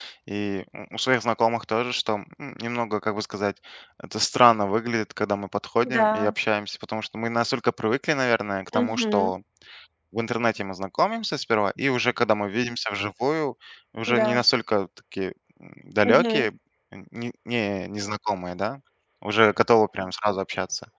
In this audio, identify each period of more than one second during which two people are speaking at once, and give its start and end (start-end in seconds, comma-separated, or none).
none